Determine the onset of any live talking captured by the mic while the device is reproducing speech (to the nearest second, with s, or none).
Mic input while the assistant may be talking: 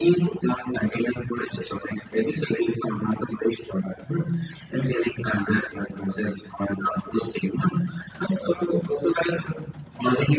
none